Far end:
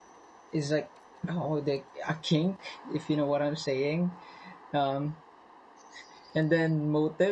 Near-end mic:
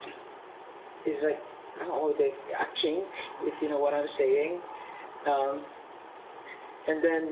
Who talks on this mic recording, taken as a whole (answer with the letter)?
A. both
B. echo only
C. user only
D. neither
B